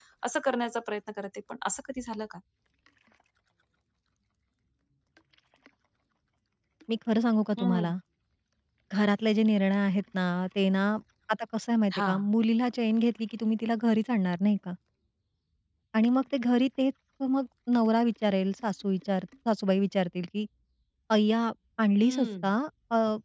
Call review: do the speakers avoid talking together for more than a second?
Yes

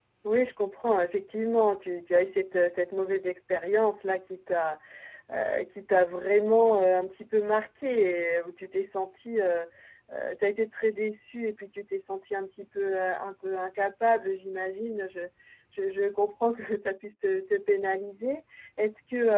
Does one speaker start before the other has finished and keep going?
No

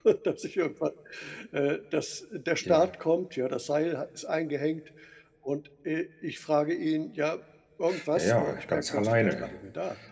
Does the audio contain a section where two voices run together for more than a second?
Yes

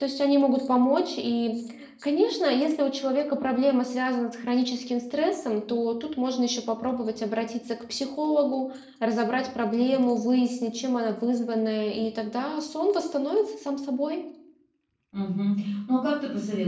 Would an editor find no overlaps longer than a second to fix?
Yes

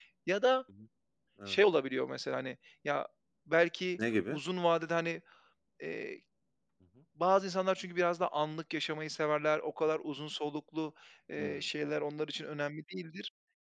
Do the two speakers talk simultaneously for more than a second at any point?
No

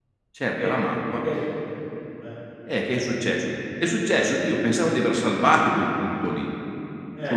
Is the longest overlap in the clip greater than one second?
No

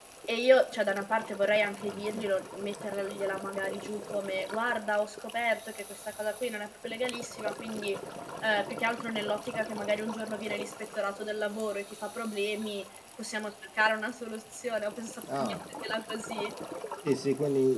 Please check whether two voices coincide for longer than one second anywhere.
No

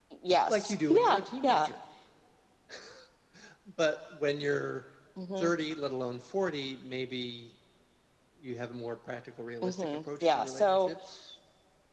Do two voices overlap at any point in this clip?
Yes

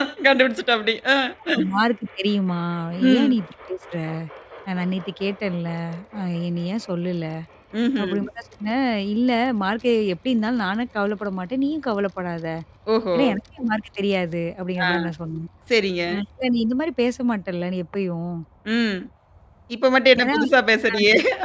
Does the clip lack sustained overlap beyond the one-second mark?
Yes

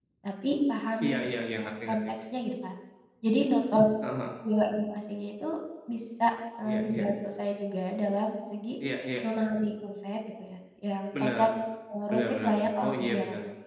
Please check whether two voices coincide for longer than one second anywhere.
Yes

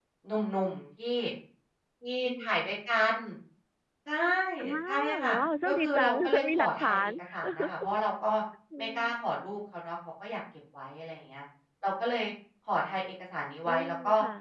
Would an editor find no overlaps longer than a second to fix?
No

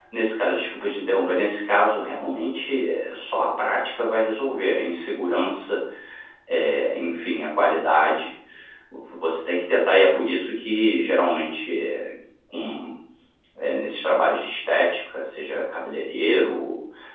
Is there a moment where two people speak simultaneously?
No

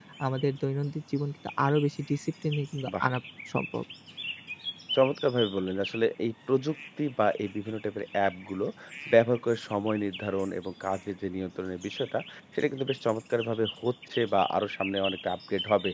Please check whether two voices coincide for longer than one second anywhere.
No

